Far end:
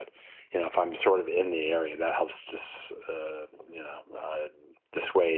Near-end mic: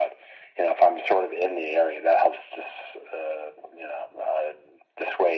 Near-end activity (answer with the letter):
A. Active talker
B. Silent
B